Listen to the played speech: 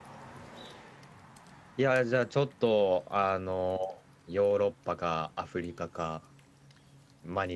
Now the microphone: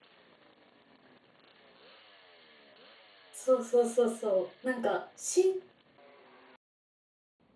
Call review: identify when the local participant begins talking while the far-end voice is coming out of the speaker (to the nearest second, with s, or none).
3 s